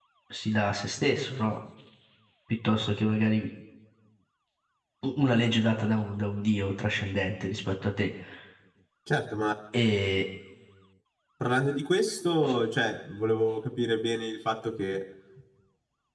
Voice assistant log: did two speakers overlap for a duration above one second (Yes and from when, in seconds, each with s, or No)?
No